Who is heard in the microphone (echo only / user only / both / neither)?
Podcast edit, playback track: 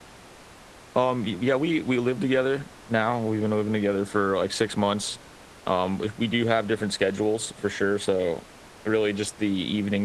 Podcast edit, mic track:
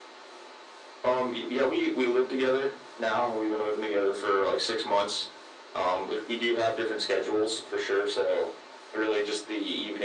echo only